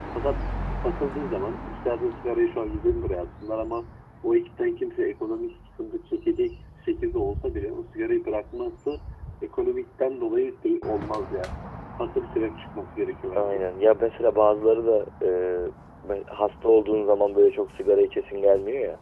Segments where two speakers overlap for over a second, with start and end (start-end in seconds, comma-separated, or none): none